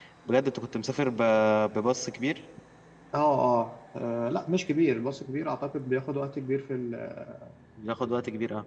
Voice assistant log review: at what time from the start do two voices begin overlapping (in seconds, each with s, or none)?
none